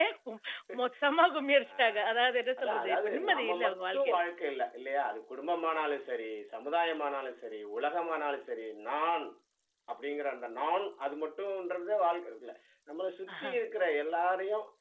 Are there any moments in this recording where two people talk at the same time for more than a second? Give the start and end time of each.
2.6-4.2

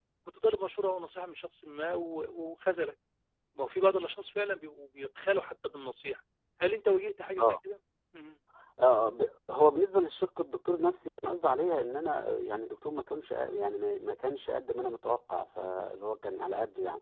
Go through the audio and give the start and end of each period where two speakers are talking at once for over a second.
none

